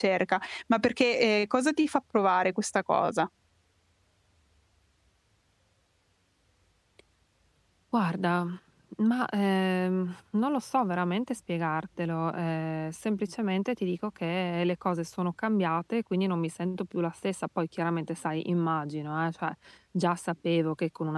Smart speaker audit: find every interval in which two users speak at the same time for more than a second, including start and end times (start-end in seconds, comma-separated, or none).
none